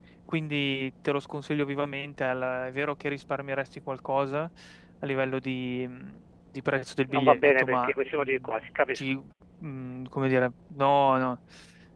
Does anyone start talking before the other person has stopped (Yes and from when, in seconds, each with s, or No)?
Yes, from 7.1 s